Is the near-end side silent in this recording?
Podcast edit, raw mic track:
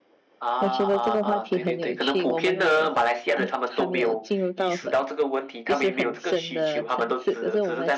No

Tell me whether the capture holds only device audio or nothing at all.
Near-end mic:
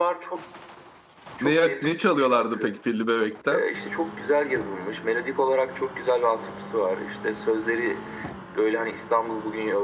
No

